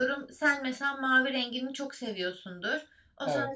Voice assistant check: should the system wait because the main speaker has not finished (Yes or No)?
Yes